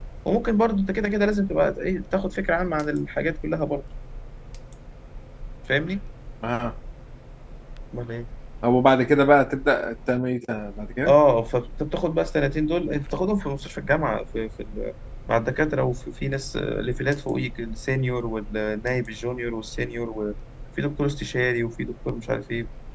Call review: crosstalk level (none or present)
none